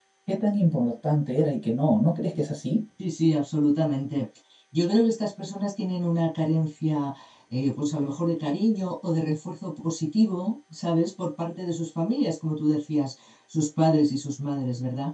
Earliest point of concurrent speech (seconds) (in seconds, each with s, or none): none